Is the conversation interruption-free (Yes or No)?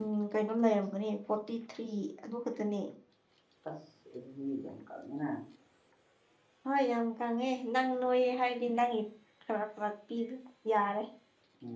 Yes